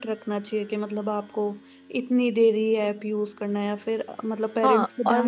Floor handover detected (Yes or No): Yes